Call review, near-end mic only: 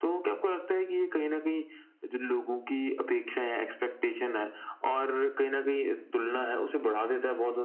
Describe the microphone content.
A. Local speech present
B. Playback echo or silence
B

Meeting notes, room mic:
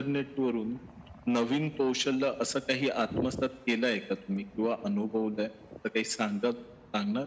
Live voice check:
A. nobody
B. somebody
A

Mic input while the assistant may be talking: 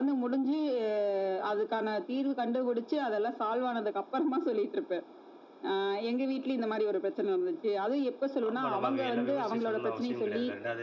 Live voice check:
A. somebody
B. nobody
A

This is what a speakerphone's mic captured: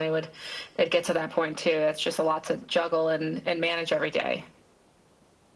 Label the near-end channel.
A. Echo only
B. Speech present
A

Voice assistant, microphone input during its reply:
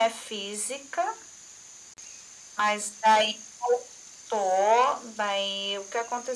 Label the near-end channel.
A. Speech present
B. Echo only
B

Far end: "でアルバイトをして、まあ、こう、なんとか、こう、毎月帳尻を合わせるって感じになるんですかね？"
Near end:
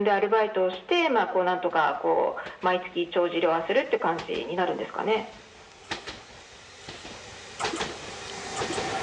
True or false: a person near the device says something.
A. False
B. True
A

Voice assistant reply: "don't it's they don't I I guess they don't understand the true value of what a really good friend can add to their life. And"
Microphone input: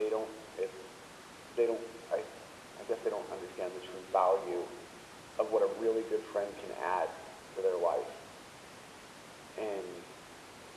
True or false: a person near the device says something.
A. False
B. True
A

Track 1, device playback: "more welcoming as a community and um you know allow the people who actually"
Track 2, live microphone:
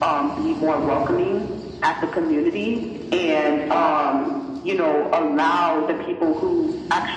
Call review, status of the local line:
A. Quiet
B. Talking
A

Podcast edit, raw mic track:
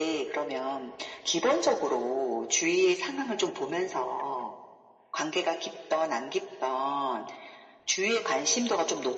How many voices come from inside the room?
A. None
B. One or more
A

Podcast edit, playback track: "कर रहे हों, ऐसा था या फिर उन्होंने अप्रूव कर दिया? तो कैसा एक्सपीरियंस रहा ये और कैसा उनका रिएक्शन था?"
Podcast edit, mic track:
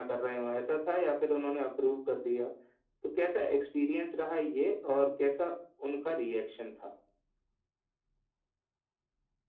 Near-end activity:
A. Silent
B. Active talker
A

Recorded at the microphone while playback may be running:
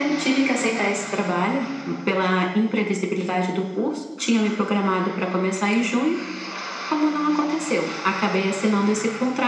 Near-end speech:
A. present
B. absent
B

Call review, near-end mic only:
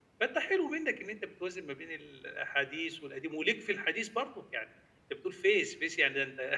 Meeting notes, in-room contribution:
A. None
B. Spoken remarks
B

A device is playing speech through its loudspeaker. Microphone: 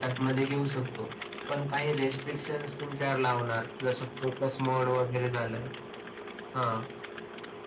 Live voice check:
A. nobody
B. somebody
A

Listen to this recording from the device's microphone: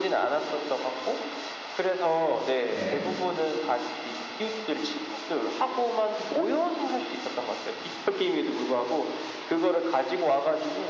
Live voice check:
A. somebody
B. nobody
A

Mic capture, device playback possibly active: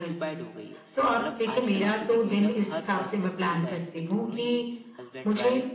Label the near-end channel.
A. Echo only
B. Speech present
B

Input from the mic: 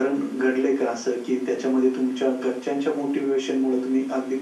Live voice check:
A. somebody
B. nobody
B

